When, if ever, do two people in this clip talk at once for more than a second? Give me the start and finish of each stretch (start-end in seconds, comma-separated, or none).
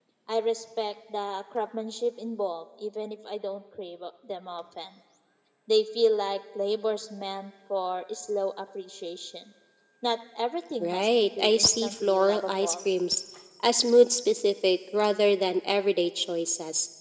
10.8-12.9